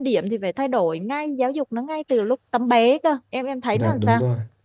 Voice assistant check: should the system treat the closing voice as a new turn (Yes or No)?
Yes